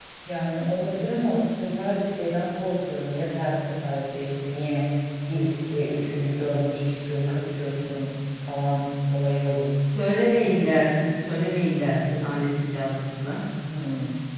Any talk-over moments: No

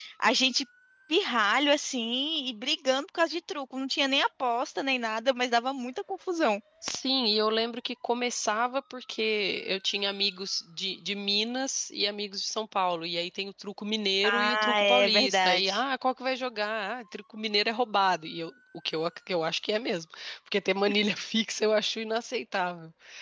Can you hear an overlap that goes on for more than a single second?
Yes, from 14.2 s

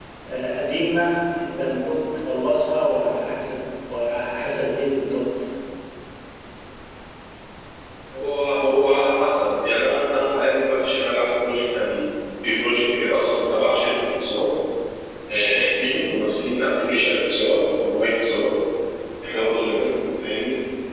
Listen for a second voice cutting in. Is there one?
No

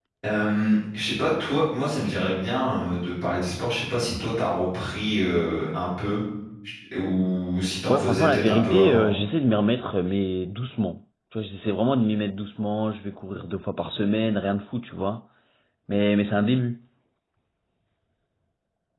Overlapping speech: Yes, from 7.9 s

